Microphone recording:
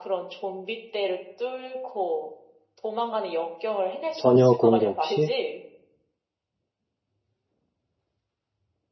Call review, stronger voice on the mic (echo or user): user